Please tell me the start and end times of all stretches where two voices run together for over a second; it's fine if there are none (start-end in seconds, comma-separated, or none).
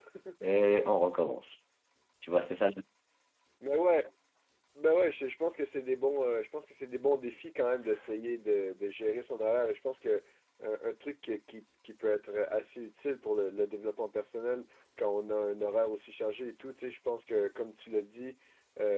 none